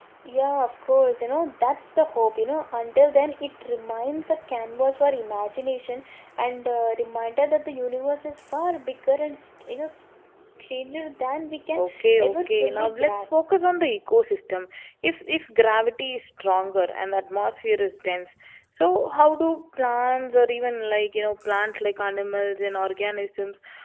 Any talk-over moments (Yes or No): Yes